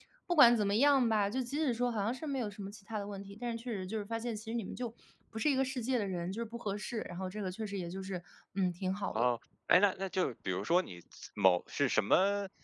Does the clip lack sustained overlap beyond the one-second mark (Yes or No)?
Yes